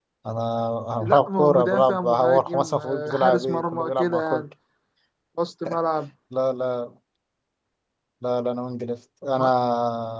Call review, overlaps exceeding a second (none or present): present